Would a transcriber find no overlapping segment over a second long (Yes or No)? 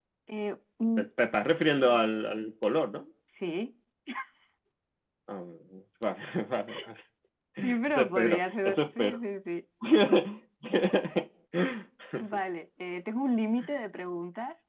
No